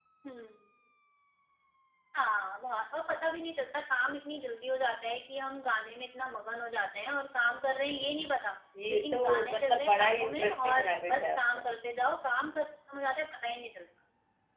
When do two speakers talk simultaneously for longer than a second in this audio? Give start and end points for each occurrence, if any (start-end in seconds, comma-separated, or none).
8.9-11.7